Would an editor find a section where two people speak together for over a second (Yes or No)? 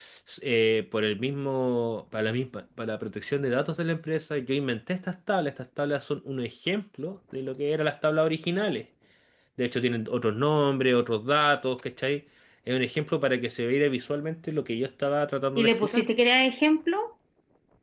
No